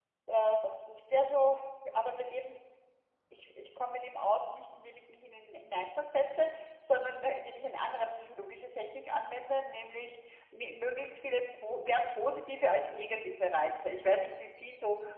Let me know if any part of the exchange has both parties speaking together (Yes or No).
No